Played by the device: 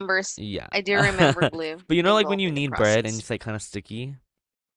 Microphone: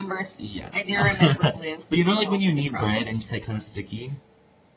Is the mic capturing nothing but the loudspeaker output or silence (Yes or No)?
Yes